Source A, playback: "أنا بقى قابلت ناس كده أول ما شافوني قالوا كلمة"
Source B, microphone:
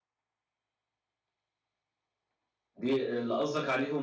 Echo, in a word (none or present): none